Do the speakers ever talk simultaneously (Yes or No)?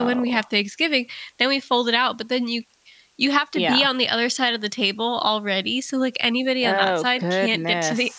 Yes